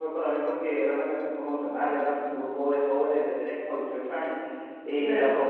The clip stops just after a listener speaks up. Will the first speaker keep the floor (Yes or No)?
Yes